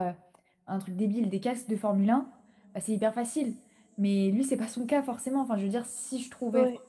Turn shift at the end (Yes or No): No